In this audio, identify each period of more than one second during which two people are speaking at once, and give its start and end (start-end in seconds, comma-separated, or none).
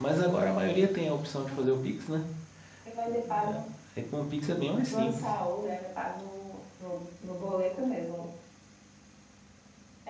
none